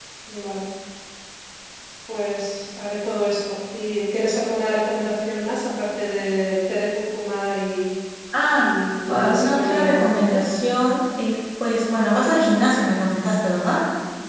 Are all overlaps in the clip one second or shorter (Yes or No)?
No